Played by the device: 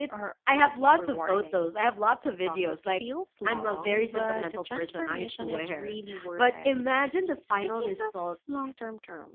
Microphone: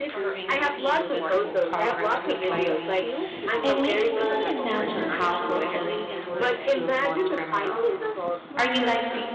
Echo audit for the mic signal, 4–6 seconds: both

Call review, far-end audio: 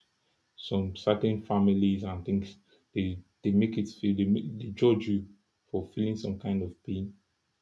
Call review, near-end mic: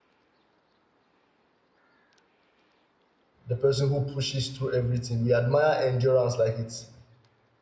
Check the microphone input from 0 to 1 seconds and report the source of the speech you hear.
neither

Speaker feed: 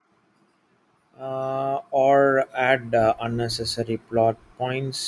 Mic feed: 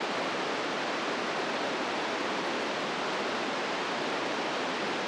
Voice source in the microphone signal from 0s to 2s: neither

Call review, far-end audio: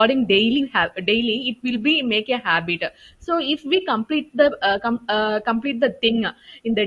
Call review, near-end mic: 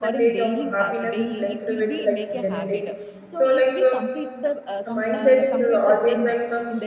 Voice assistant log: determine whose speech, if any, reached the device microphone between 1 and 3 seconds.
both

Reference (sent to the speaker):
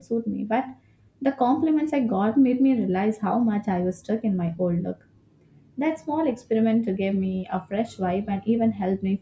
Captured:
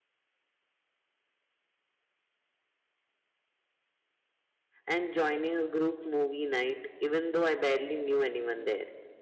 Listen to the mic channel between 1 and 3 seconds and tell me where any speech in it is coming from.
neither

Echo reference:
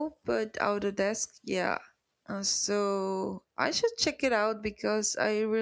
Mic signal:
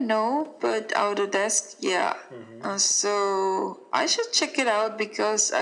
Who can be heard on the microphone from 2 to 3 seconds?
both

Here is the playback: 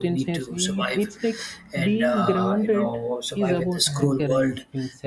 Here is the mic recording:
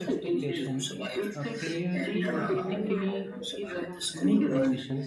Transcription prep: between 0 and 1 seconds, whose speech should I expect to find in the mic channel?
both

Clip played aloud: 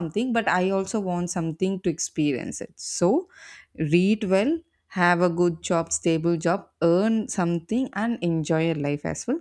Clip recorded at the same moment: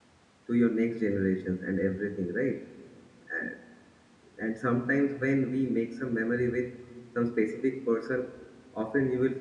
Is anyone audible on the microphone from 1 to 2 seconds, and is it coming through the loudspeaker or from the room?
user only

